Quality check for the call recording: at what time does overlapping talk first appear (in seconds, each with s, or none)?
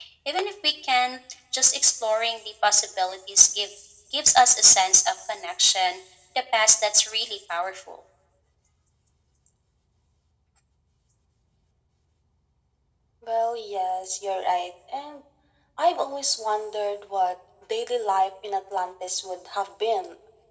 none